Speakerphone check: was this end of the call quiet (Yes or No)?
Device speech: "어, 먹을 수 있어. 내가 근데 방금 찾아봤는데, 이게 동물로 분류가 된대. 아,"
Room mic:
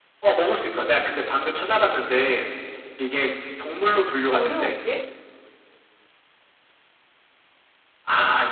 No